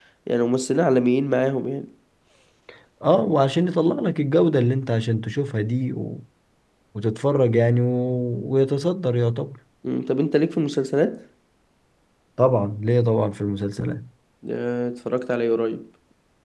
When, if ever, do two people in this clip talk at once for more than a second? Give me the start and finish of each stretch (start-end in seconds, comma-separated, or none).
none